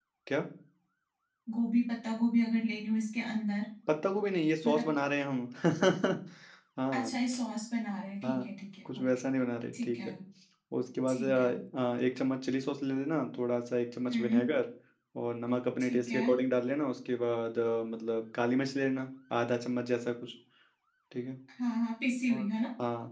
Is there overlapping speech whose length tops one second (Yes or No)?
No